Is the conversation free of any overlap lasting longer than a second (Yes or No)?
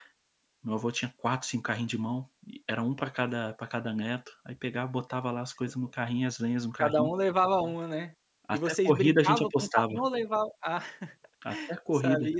No